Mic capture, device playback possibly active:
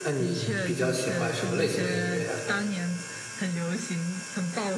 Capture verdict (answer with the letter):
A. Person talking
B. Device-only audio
A